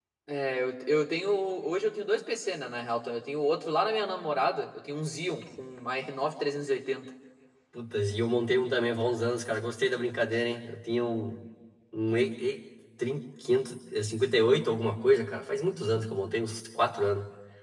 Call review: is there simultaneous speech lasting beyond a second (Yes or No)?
No